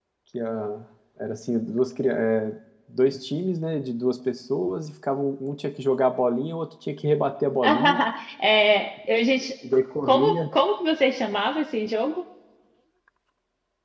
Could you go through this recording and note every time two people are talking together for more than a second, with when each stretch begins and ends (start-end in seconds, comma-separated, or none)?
none